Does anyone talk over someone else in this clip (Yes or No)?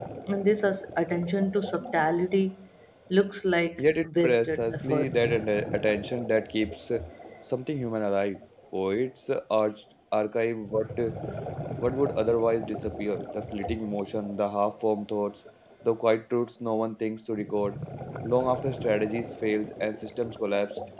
Yes